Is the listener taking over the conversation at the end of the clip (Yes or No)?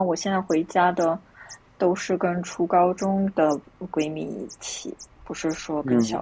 Yes